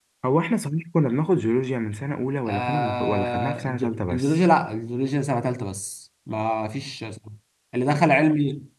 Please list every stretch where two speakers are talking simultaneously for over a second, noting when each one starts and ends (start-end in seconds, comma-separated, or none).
2.5-4.4